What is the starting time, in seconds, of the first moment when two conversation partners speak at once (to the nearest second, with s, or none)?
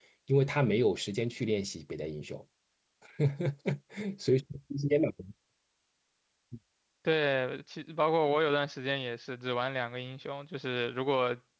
none